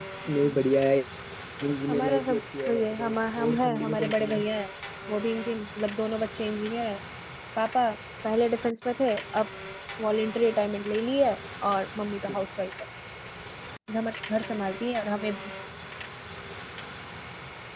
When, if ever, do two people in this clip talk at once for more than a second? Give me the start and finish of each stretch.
1.9-4.4

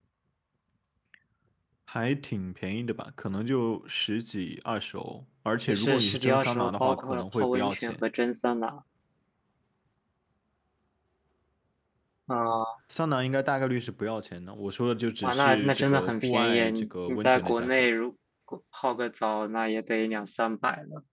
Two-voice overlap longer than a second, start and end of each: 5.7-7.9, 15.2-17.9

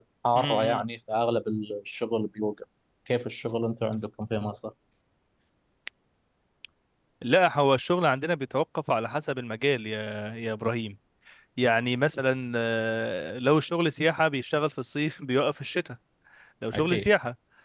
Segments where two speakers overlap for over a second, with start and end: none

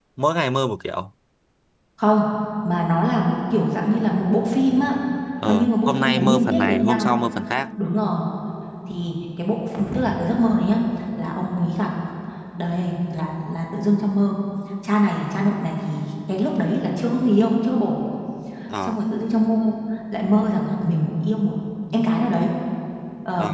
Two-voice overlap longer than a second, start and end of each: 5.5-7.1

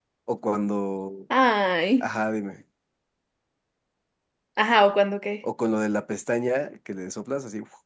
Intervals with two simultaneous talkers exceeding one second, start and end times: none

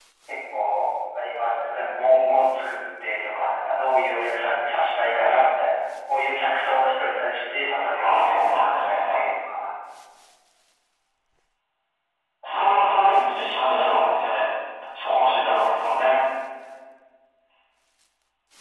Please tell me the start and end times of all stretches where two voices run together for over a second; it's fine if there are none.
8.0-9.3, 12.5-14.1

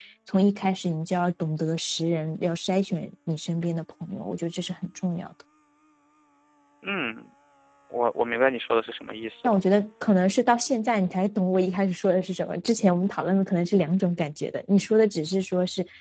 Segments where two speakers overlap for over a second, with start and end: none

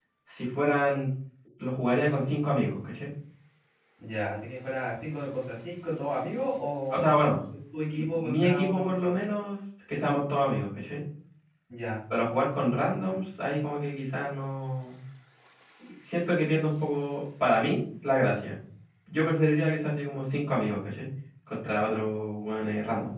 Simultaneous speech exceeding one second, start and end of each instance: 7.9-9.2

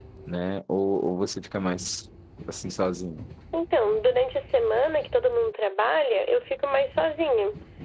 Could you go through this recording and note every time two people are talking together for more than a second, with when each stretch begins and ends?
none

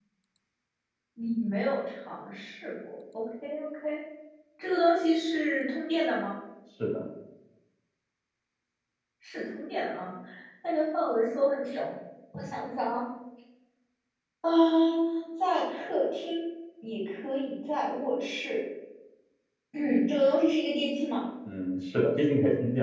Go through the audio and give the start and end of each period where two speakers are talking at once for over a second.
none

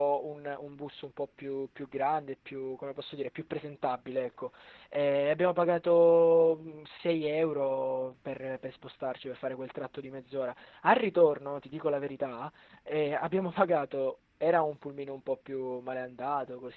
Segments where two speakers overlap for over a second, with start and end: none

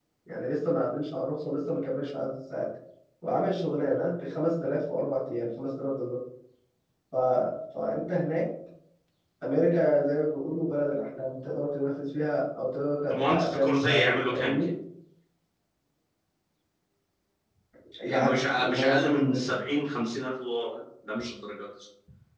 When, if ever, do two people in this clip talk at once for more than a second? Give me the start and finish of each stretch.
13.1-14.7, 18.0-19.5

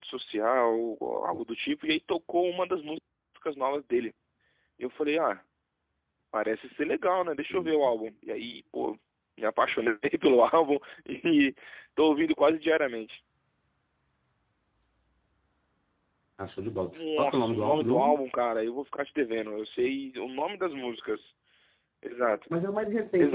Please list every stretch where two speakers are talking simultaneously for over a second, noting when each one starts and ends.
16.9-18.2

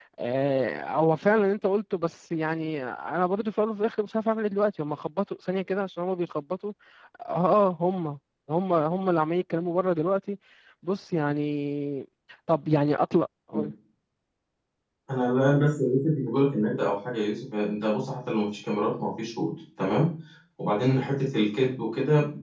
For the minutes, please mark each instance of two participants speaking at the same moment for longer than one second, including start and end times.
none

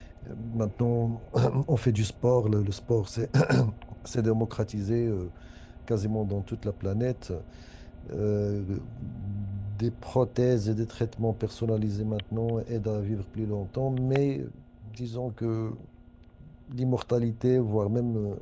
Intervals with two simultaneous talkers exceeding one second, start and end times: none

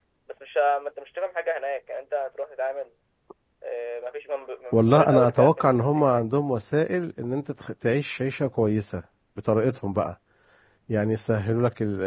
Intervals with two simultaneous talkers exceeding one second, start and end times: 4.7-6.2

